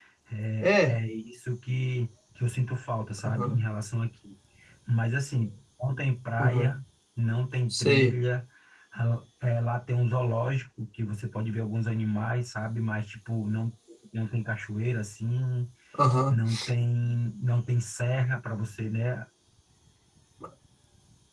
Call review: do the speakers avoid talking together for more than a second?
Yes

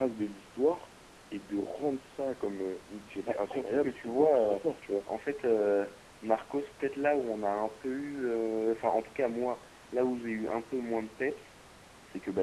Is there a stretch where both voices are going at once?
Yes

